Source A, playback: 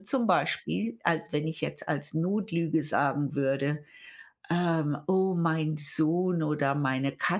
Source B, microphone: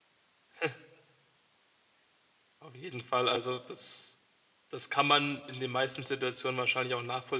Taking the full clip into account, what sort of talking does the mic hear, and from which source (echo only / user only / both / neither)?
user only